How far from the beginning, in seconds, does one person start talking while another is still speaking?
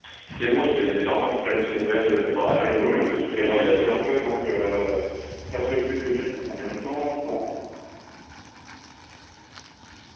2.5 s

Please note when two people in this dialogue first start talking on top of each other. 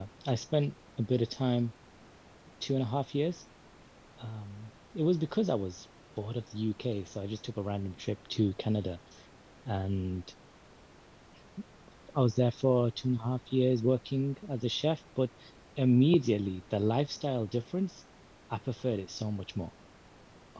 none

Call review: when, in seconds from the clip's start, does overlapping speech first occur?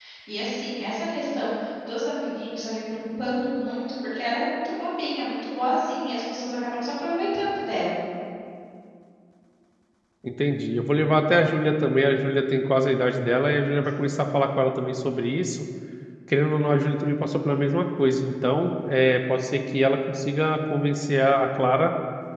none

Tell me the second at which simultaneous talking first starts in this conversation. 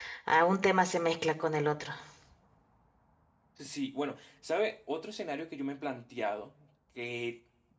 none

